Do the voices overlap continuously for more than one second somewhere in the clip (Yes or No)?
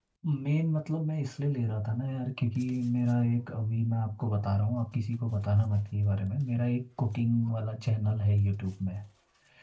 No